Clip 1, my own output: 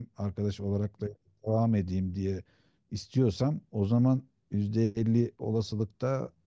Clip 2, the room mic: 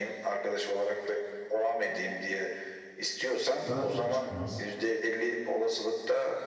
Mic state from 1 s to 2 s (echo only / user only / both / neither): echo only